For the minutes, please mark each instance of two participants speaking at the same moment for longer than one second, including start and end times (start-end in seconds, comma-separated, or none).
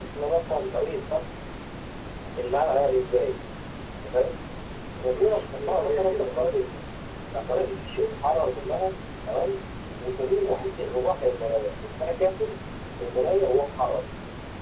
5.0-6.8